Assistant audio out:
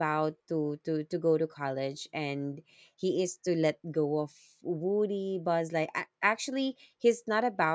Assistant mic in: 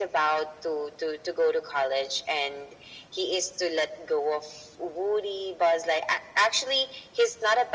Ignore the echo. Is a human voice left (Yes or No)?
No